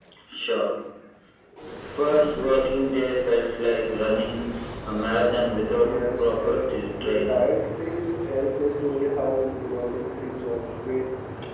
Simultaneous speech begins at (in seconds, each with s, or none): 5.8 s